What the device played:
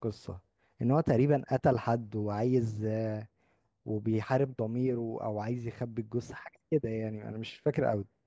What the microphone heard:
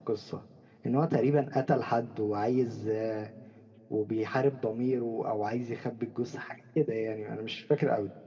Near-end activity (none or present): none